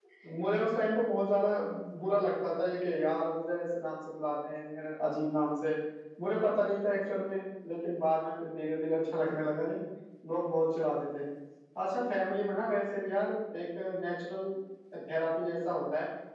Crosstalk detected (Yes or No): No